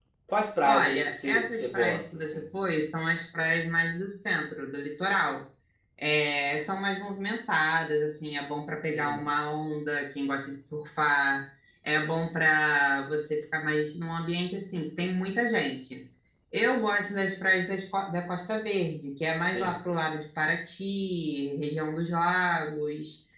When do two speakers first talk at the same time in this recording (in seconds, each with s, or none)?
0.6 s